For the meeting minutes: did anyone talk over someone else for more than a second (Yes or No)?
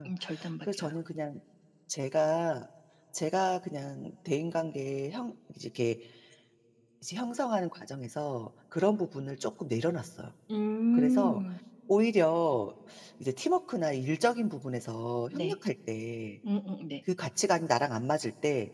No